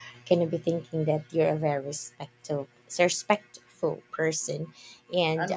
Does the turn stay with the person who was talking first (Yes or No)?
No